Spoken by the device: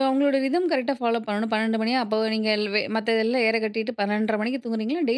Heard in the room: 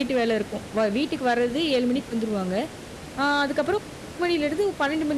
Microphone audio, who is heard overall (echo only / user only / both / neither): user only